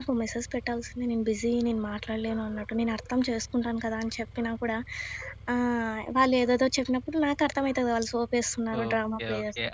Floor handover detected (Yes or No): Yes